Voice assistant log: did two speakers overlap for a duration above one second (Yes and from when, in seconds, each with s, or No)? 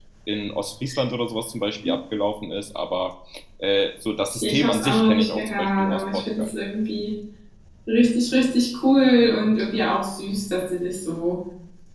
Yes, from 4.4 s